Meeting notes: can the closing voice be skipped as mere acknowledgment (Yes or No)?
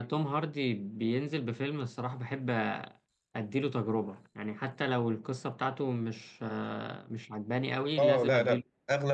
No